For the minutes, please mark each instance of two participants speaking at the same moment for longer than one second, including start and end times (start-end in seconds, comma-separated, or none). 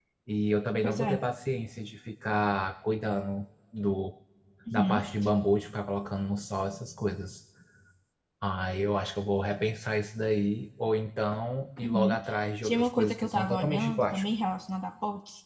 12.6-14.2